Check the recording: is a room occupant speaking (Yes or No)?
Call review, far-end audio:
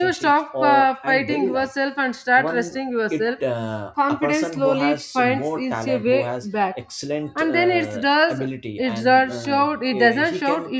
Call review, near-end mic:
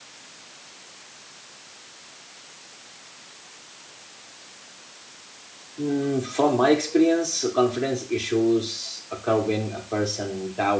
Yes